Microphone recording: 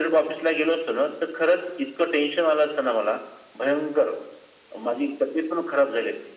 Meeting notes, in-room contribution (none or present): none